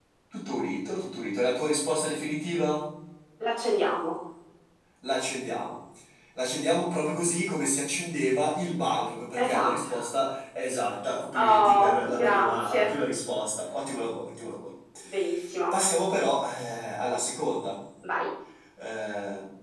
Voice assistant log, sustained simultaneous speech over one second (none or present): present